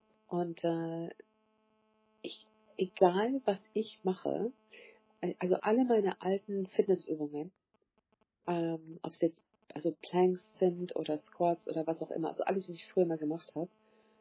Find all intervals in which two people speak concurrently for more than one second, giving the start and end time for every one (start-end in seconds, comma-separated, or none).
none